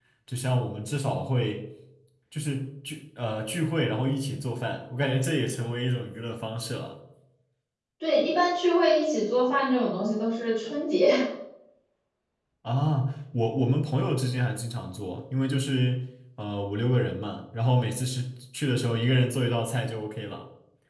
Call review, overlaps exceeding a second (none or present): none